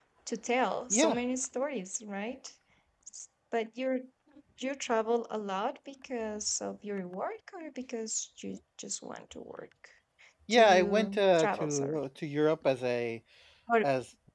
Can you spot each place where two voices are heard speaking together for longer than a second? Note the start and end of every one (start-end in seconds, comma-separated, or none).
10.5-12.0